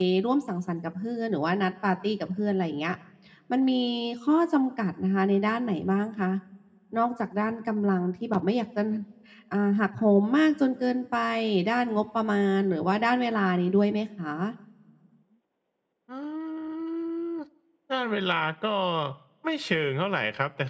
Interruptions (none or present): none